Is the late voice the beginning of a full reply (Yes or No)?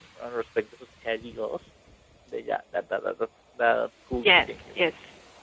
Yes